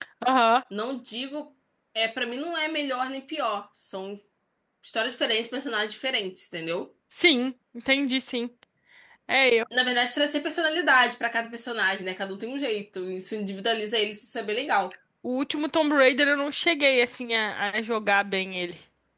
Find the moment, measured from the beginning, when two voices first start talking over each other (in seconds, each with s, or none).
none